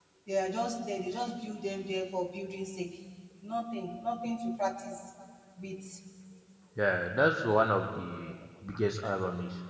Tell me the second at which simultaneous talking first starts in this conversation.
none

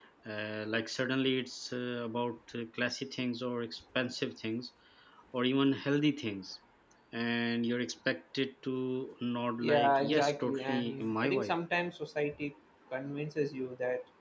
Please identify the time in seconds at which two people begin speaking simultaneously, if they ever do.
9.6 s

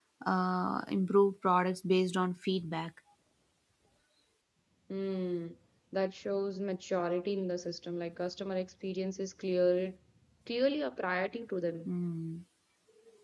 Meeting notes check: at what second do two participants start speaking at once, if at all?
none

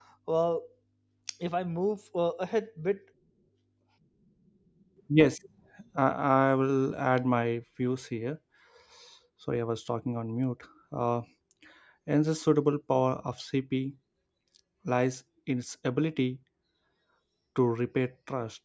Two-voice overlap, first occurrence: none

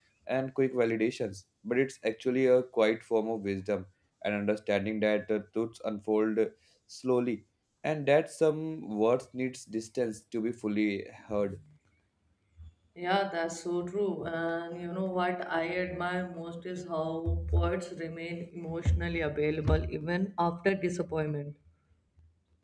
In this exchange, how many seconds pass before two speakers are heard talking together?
none

